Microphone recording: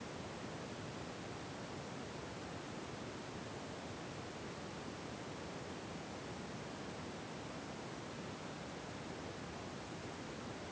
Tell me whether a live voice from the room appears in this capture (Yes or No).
No